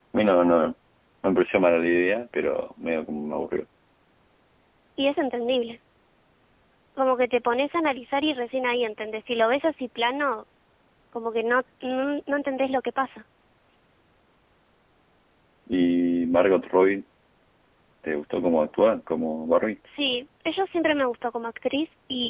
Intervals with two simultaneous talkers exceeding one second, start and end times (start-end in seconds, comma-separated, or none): none